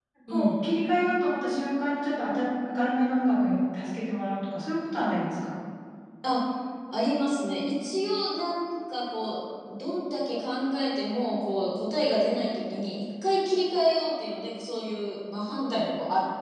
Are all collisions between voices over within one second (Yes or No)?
Yes